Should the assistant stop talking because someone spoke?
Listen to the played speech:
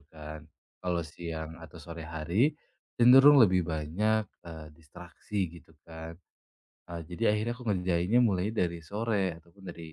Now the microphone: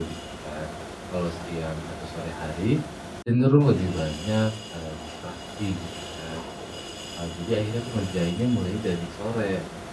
No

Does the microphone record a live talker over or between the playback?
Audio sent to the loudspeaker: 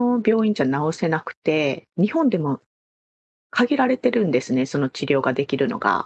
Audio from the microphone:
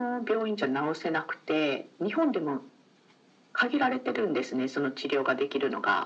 No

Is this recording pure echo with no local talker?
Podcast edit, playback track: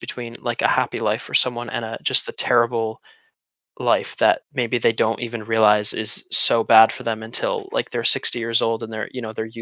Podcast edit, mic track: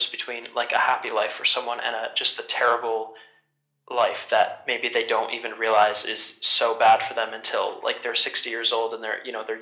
Yes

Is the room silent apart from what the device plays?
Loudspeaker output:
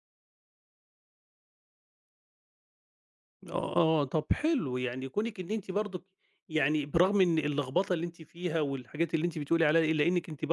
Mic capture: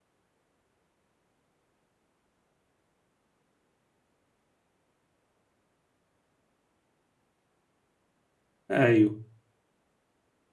No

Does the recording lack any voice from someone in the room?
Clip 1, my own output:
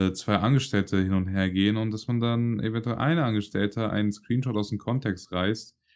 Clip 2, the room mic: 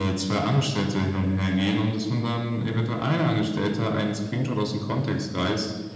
Yes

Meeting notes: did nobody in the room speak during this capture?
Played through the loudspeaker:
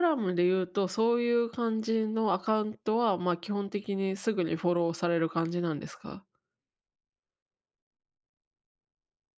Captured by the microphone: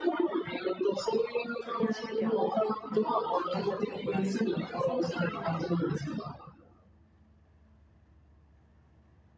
No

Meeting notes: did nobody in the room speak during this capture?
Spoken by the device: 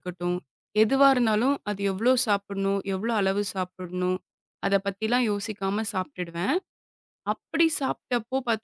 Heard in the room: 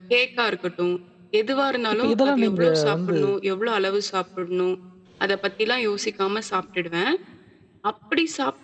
No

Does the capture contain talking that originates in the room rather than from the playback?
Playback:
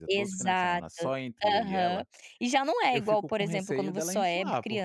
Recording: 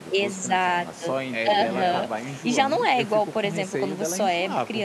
Yes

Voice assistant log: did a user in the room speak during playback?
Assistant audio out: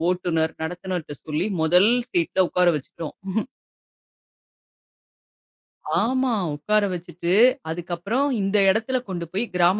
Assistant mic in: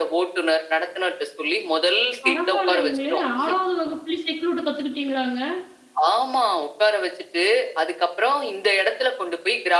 Yes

